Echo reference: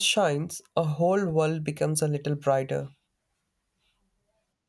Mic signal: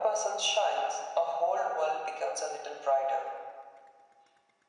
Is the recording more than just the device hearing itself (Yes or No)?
No